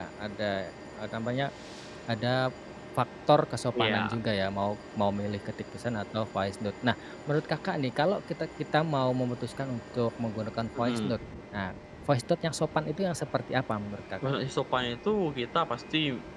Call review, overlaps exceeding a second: none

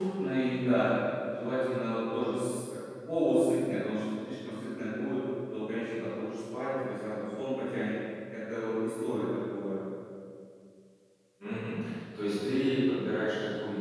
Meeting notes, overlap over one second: none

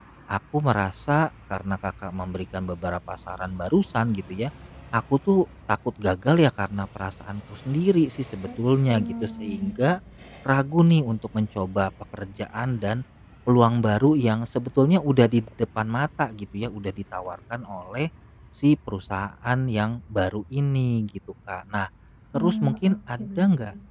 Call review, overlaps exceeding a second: present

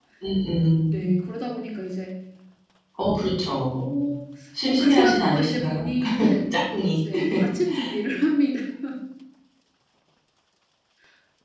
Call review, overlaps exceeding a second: present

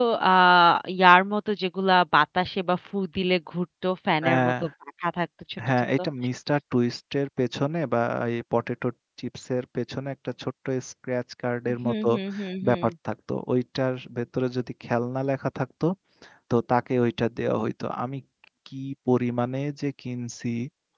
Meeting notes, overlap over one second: none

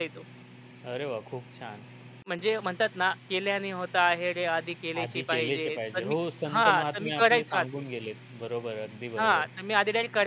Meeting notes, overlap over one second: present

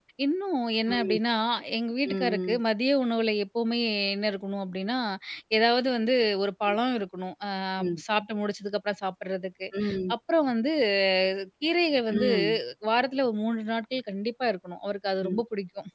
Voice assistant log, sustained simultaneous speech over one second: none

